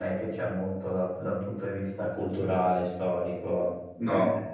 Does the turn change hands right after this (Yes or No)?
Yes